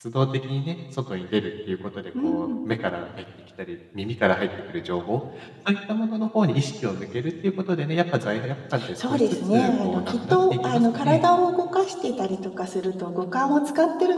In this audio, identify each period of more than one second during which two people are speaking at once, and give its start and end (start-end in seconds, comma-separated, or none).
9.0-11.2